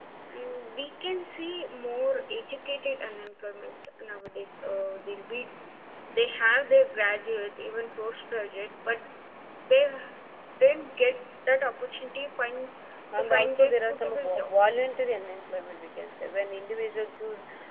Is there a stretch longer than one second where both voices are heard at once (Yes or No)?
Yes